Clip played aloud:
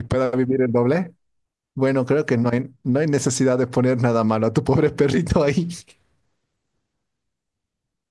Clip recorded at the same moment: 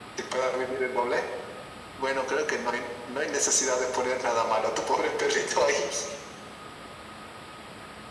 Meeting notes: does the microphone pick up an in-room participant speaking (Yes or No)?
No